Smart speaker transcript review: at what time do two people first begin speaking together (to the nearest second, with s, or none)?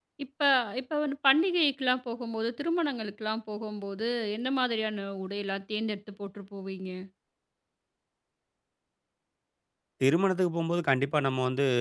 none